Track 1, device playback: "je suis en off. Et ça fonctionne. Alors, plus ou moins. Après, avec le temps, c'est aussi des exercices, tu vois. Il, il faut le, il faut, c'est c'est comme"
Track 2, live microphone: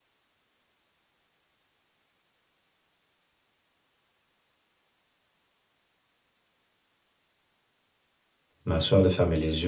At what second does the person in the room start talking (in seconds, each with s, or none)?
8.6 s